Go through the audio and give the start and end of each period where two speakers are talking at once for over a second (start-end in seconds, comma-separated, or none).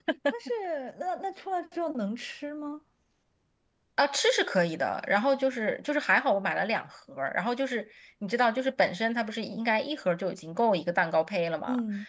none